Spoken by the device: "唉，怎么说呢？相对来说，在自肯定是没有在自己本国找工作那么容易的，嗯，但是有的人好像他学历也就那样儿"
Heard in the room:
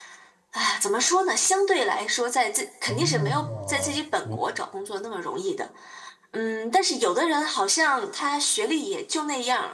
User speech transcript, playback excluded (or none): 哦，你